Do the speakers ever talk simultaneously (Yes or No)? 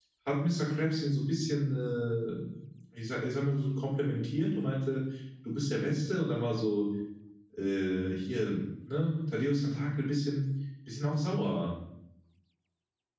No